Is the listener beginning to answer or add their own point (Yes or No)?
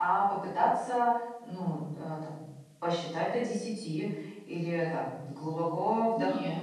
No